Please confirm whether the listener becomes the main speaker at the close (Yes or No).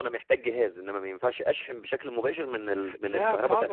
Yes